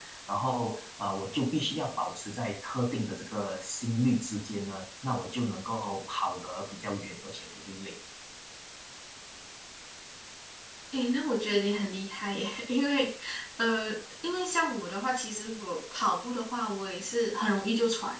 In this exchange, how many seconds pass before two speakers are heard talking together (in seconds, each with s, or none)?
none